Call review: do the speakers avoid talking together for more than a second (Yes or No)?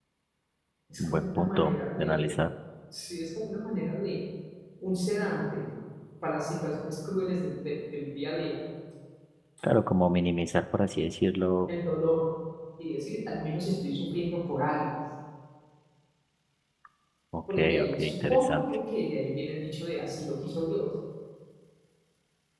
No